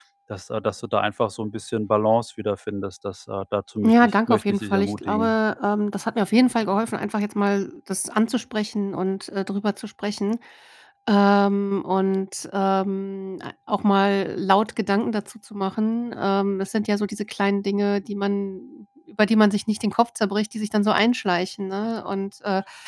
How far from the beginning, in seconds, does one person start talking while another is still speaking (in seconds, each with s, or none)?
3.8 s